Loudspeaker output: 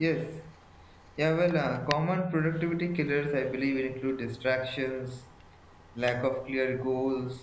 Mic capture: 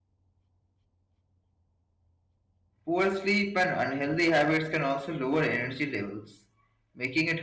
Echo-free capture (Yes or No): Yes